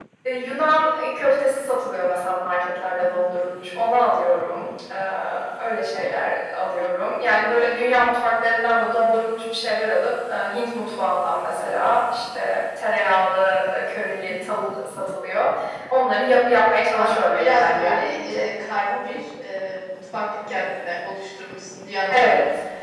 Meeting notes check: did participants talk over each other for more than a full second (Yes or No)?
Yes